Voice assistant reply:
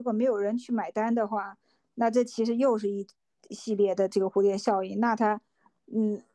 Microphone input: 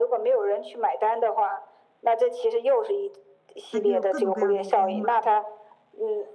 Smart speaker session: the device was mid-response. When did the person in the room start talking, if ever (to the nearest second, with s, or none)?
4 s